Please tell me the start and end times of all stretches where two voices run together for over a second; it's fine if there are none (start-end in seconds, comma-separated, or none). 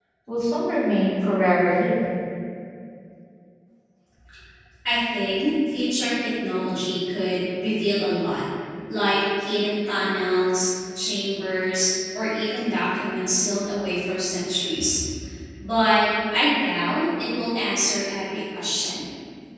none